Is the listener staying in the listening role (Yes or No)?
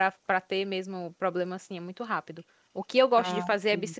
Yes